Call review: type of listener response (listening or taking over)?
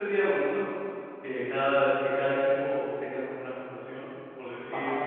listening